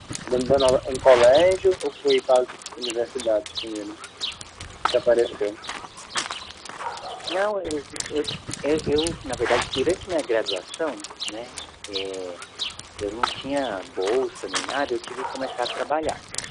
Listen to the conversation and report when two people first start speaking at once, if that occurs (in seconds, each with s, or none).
none